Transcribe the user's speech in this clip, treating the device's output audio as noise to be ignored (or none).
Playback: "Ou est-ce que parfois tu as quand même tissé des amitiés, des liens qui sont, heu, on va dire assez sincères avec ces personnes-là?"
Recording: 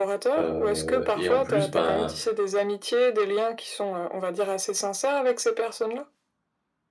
heu et en plus, ben,